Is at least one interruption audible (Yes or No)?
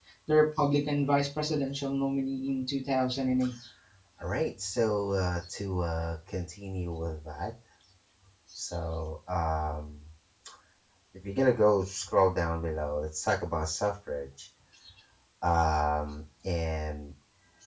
No